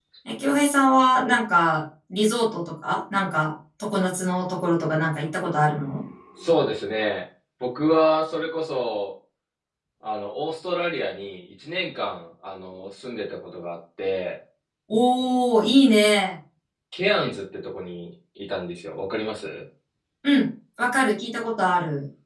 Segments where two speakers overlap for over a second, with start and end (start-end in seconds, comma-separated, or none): none